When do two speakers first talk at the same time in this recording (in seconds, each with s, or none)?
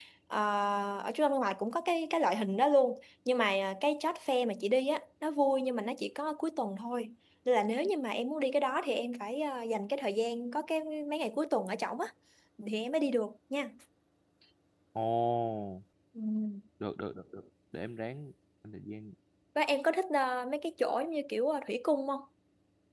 none